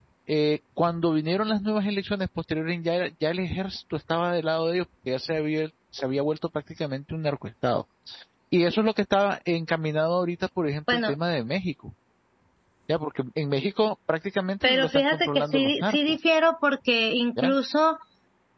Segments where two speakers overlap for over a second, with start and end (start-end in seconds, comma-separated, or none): 14.6-16.2